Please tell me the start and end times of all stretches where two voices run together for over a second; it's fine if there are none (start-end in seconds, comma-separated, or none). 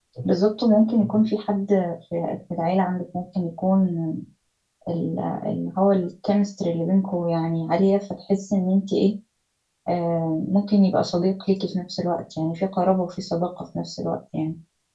none